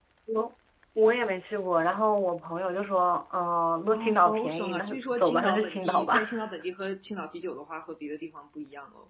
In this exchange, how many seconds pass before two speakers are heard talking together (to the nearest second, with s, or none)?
4 s